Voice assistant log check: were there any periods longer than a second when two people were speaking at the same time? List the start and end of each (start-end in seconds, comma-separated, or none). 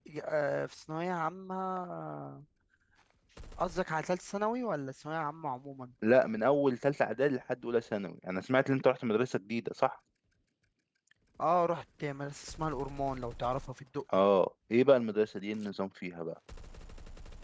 none